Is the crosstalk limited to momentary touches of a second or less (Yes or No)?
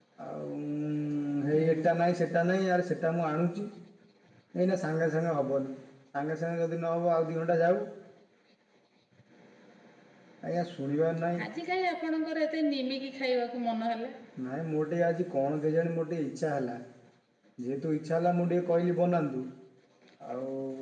Yes